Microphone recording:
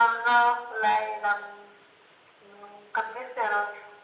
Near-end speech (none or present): none